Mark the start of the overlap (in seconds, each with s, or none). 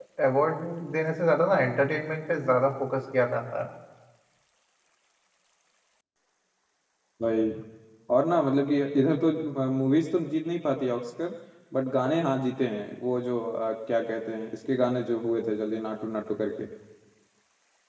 none